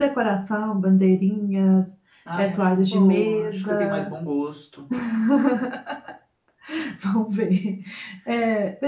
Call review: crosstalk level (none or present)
present